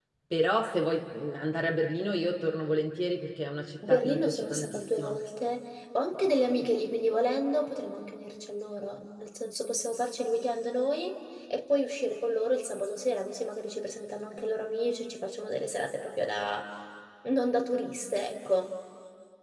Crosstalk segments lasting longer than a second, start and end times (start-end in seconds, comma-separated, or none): 3.9-5.2